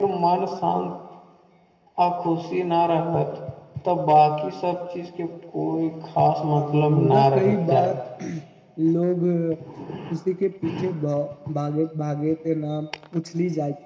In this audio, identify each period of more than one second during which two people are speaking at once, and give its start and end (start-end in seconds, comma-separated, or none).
6.5-8.0